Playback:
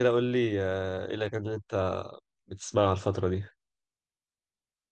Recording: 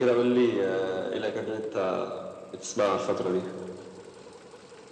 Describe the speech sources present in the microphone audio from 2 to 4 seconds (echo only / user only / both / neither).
echo only